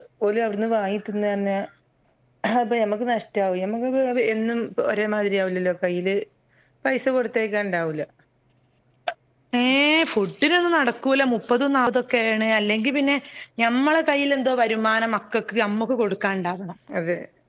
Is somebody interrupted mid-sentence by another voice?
No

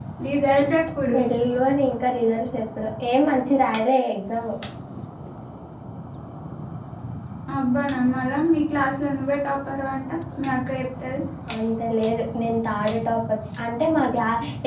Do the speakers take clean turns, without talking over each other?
Yes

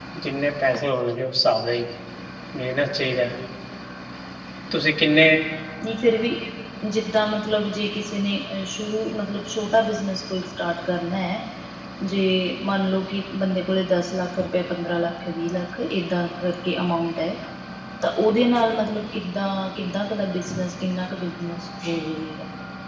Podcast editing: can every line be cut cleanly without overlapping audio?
Yes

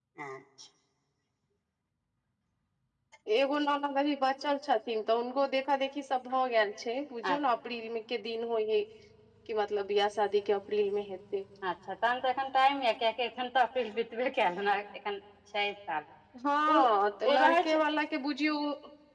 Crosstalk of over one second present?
No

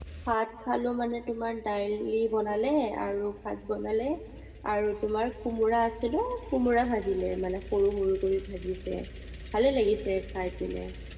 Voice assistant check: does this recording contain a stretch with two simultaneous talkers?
No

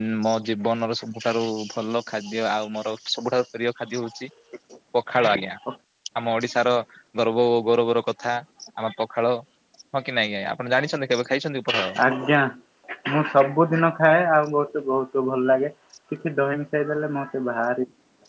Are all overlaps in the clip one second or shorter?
Yes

